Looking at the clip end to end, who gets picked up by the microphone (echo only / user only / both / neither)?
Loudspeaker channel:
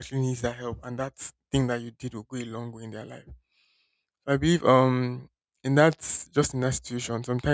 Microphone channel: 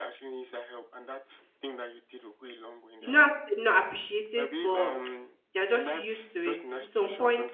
both